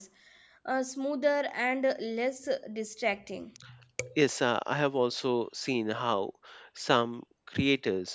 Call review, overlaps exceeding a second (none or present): none